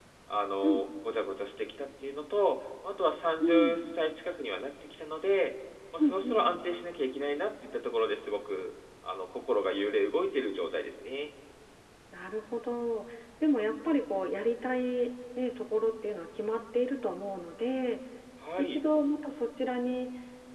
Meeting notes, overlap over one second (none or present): none